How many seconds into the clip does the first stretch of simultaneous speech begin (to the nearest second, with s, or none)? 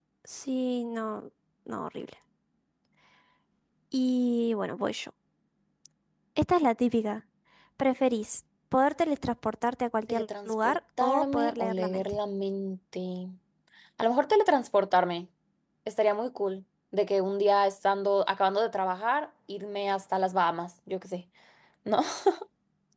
10 s